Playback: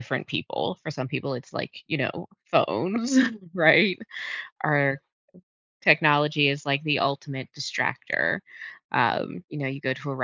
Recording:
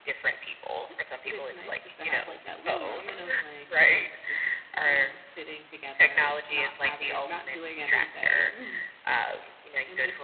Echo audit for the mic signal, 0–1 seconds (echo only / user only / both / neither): echo only